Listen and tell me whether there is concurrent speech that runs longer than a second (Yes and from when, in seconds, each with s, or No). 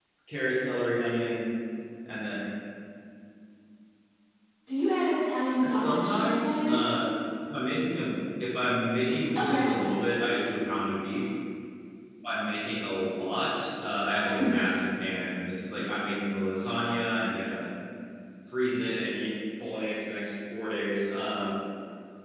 Yes, from 5.7 s